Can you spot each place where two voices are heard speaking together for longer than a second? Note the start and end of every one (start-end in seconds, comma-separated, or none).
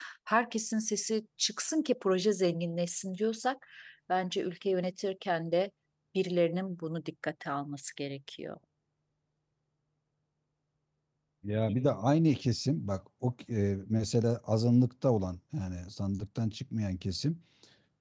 none